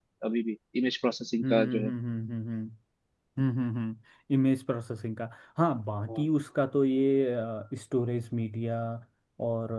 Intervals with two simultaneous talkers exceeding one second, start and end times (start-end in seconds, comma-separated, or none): none